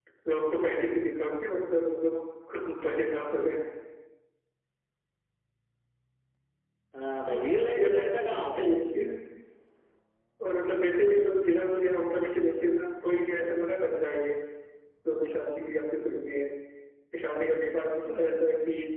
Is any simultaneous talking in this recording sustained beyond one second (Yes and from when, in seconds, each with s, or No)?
Yes, from 7.2 s